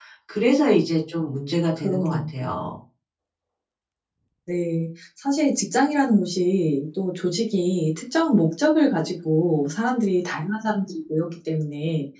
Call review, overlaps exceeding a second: none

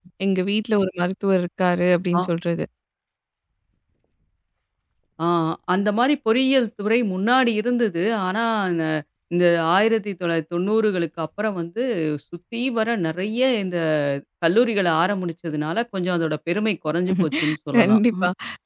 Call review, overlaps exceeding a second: none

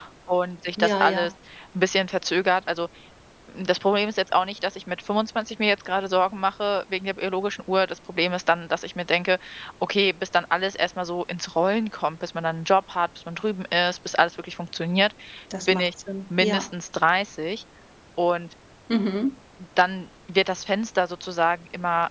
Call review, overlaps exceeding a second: none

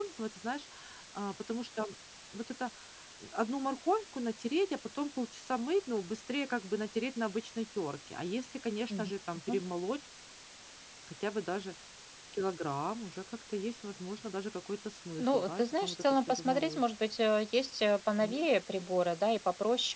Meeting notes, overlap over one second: present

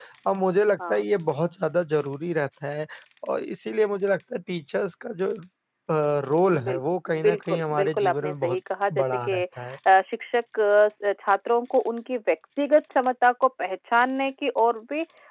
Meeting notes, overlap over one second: present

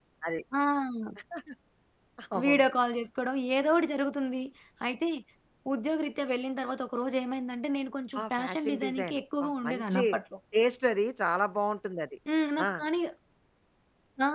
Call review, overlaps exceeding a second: present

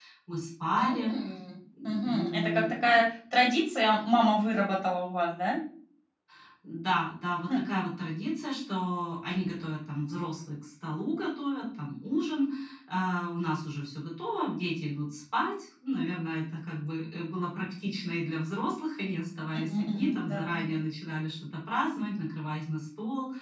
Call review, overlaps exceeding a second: present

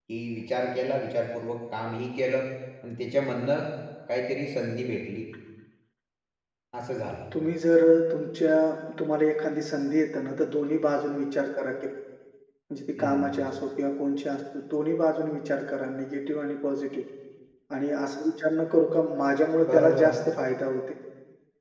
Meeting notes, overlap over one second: none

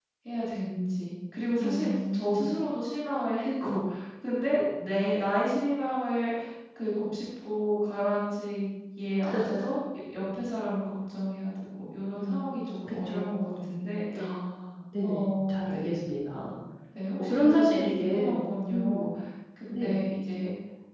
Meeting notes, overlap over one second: present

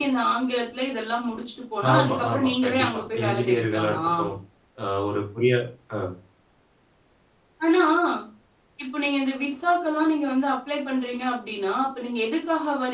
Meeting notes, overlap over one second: present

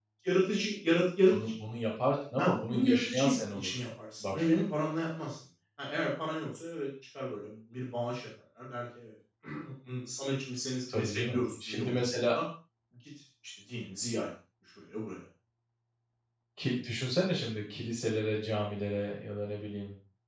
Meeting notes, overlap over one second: present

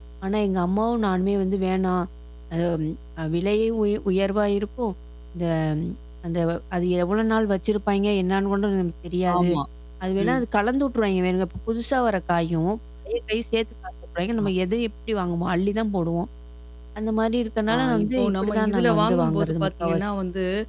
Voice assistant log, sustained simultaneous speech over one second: present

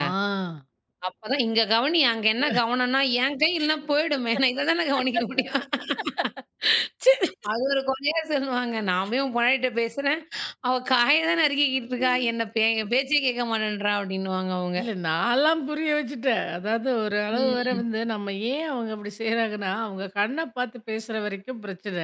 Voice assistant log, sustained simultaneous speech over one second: none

